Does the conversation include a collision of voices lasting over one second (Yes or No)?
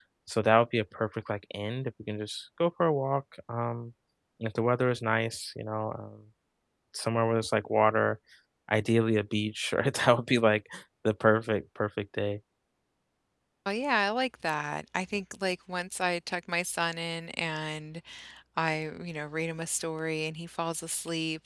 No